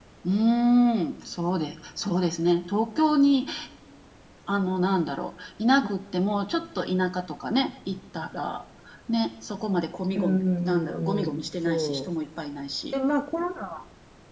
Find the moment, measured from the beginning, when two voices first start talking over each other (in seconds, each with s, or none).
10.2 s